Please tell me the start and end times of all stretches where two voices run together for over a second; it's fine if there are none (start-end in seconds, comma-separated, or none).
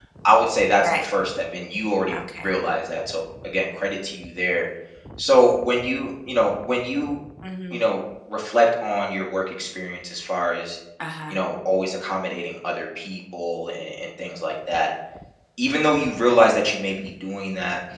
none